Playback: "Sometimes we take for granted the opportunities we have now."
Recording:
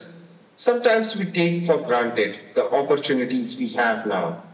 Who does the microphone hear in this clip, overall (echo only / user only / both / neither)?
echo only